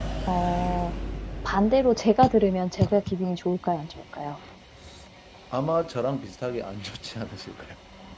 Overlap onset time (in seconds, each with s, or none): none